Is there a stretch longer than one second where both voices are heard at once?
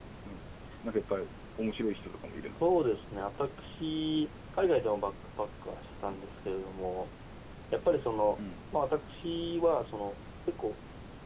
No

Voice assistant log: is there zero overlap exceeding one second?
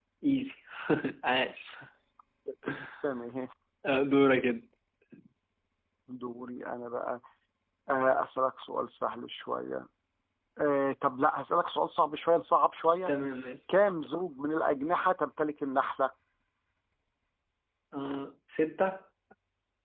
Yes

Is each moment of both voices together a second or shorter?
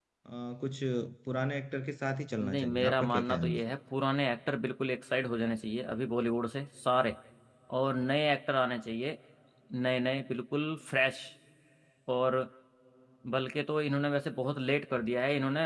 No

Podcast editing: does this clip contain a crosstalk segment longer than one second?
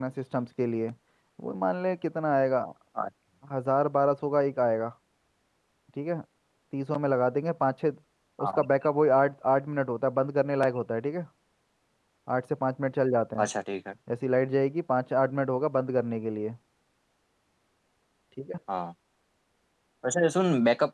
No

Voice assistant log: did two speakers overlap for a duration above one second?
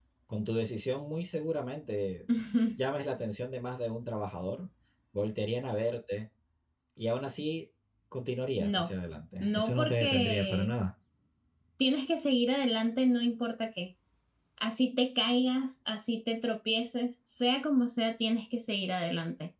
Yes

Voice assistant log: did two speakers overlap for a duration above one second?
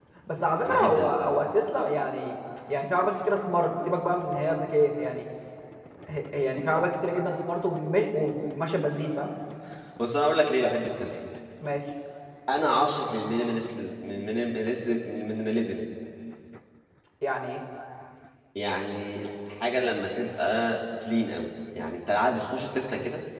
No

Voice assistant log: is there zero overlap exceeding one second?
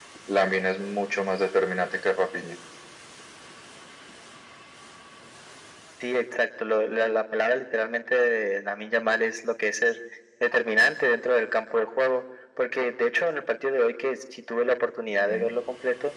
Yes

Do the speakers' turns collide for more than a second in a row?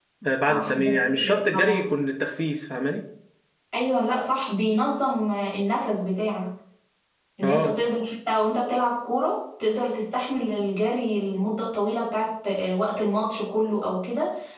Yes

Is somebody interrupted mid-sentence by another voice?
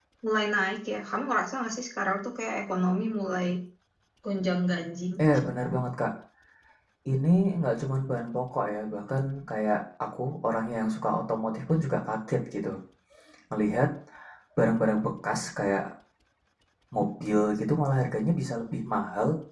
No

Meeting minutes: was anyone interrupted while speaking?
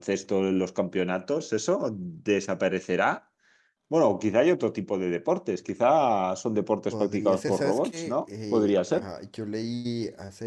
Yes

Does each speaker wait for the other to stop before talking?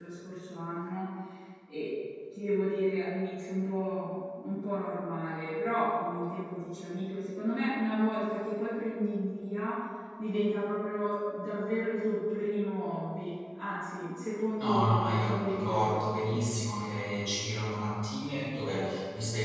No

